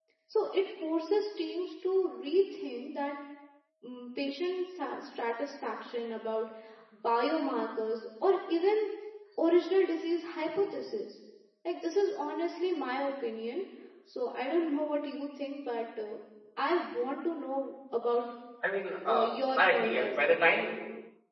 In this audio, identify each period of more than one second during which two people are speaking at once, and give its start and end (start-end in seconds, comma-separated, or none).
19.0-20.4